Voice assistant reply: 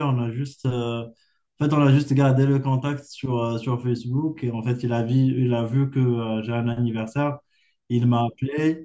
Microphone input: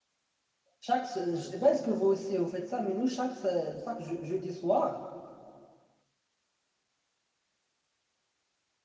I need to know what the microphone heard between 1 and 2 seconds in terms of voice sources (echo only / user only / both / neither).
user only